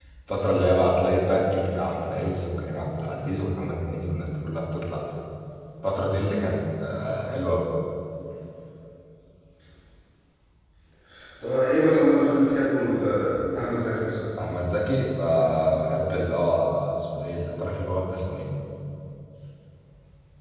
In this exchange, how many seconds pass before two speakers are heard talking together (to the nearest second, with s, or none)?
none